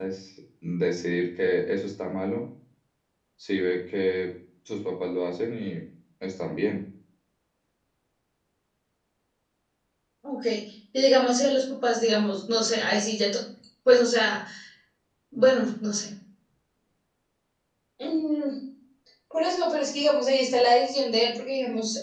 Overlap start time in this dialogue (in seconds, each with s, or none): none